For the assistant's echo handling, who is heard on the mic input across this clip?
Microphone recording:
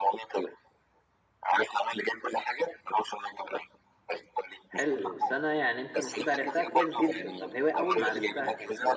both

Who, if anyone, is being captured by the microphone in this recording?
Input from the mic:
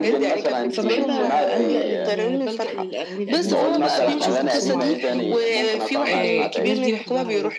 both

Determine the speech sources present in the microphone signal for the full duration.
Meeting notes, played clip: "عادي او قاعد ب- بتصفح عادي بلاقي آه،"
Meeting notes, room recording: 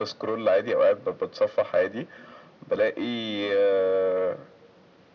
echo only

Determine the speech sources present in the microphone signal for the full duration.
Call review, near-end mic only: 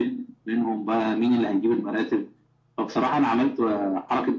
echo only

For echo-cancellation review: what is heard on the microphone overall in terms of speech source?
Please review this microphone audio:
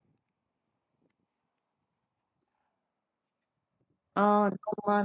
user only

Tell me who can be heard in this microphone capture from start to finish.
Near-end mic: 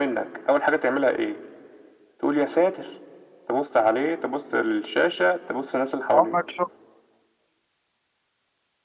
both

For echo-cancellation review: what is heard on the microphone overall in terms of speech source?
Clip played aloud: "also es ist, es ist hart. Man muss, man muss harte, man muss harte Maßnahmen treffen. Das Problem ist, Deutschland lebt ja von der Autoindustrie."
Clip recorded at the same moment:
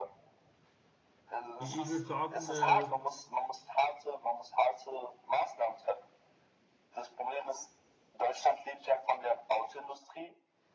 both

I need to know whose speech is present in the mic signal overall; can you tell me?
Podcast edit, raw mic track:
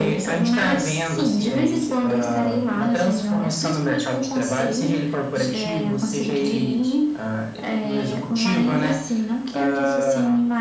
echo only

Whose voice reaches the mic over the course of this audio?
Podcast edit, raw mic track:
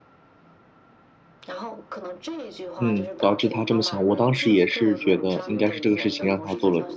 both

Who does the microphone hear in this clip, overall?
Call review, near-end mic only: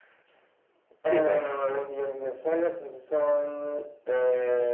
both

